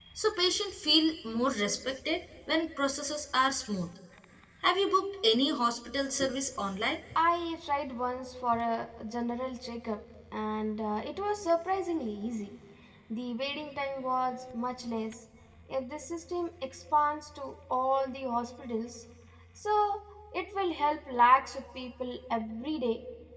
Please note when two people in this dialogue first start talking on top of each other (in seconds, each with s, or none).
none